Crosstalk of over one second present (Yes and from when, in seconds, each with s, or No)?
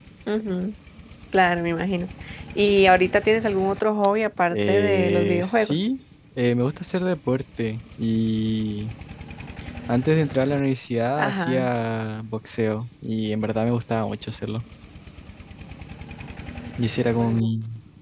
Yes, from 4.5 s